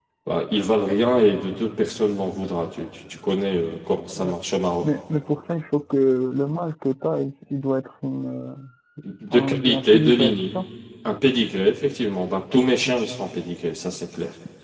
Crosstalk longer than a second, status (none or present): present